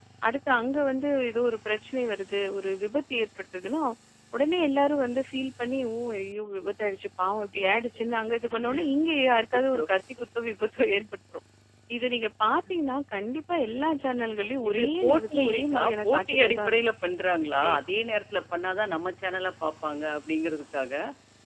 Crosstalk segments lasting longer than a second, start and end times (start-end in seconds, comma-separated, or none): 14.7-16.8